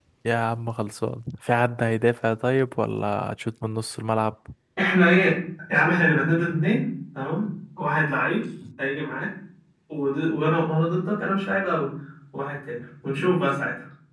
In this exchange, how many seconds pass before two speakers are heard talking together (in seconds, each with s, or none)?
none